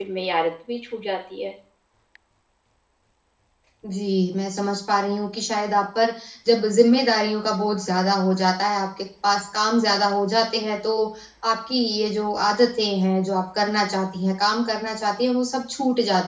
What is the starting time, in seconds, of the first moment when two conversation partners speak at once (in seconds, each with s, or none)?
none